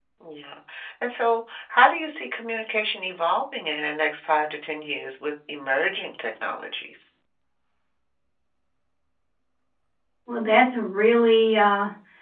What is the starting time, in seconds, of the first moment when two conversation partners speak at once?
none

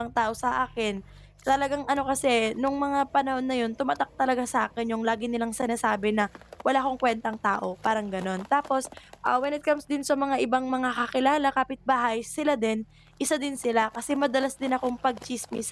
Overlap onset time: none

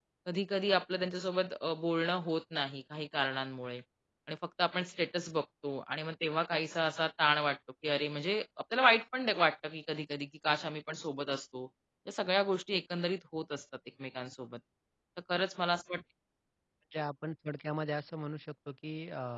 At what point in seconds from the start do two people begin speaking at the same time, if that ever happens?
none

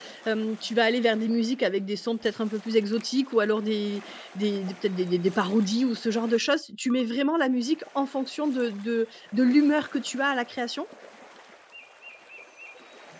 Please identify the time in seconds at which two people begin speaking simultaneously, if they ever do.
none

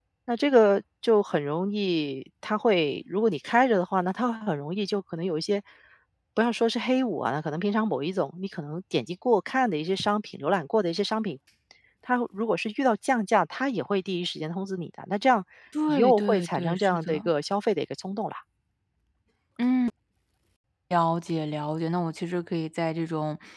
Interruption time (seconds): 16 s

